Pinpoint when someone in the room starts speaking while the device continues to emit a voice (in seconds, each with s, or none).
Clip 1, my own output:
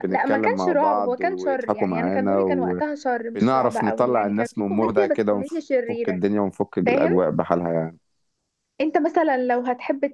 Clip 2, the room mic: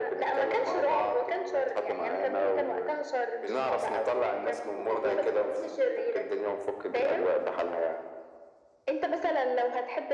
none